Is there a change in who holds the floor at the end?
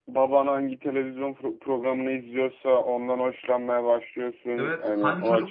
Yes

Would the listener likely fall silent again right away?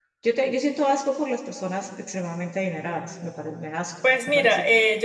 No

